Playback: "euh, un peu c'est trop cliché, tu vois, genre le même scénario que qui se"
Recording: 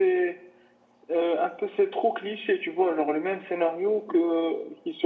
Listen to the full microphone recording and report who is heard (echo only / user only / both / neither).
echo only